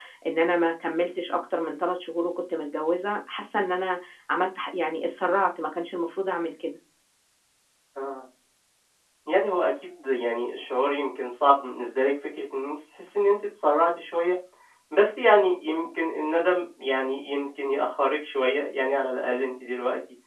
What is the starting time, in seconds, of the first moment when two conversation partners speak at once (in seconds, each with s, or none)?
none